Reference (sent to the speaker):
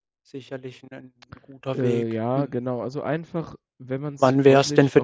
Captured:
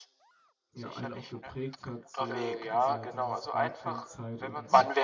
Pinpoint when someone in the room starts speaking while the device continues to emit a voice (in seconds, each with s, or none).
0.7 s